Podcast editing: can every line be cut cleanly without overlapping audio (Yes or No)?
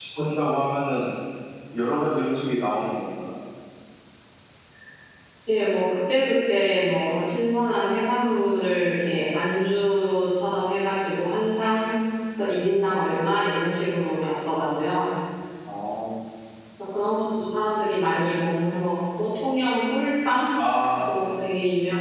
Yes